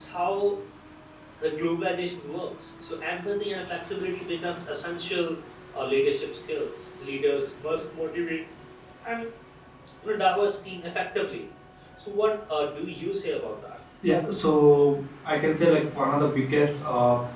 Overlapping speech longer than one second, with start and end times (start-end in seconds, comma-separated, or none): none